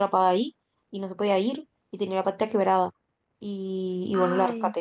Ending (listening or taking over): listening